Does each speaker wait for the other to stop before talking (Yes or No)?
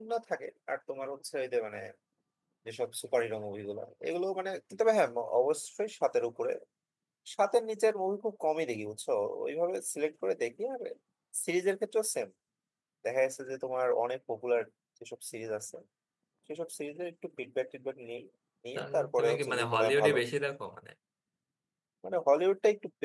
No